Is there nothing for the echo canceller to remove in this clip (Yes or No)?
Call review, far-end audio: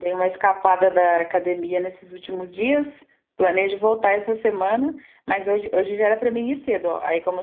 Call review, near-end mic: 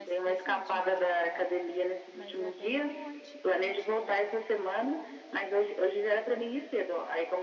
No